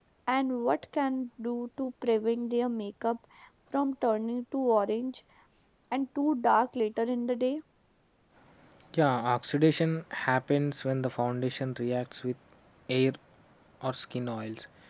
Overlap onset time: none

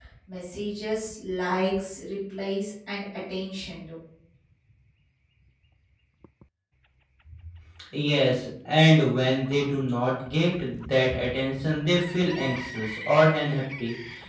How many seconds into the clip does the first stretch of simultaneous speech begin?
none

